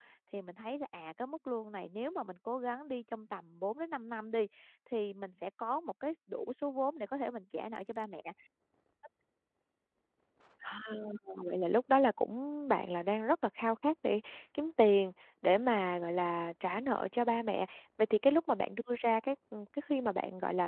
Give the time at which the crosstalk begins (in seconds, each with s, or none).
none